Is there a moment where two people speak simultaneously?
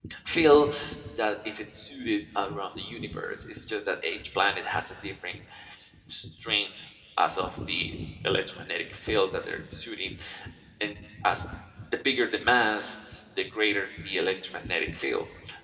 No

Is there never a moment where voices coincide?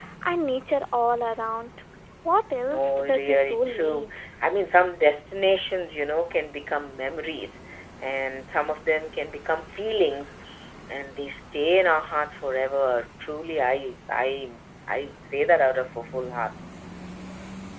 No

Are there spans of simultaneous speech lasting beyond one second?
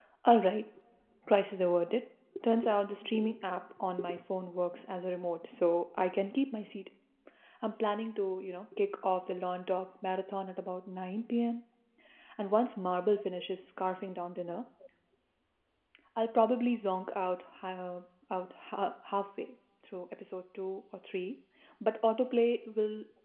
No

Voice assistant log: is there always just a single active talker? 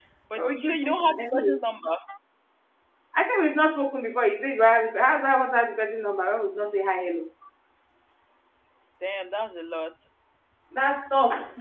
No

